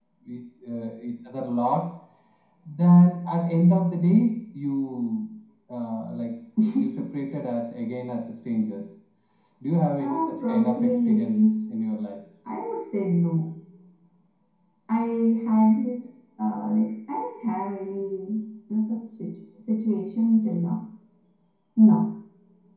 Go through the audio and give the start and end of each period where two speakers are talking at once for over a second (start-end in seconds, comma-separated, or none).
10.0-11.5